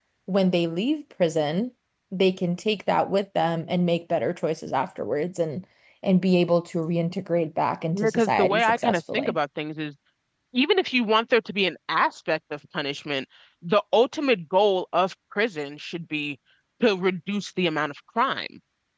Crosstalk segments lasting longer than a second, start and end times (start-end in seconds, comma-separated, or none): 8.0-9.3